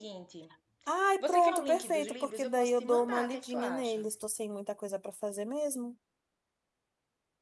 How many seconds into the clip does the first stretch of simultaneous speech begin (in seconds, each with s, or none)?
1.2 s